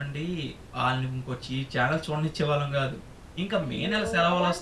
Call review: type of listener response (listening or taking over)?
taking over